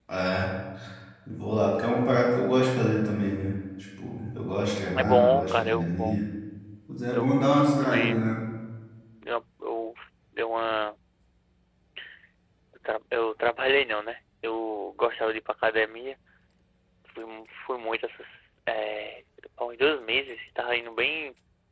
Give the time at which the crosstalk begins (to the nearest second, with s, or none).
5 s